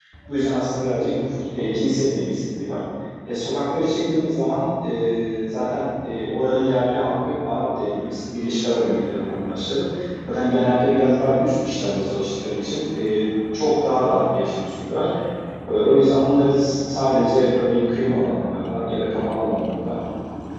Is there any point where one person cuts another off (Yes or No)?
No